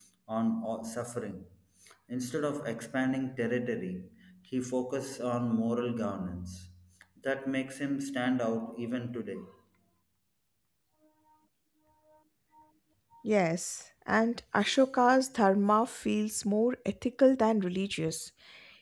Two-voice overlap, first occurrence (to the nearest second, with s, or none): none